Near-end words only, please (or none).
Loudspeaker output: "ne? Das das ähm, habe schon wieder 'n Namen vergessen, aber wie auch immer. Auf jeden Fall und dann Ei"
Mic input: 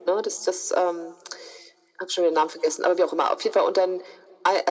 none